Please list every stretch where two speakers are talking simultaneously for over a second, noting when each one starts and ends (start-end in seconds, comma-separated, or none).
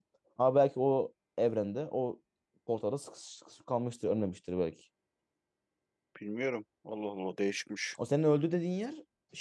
none